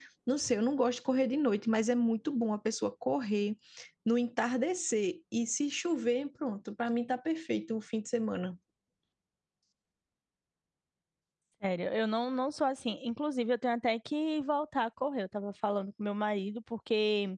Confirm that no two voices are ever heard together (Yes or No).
Yes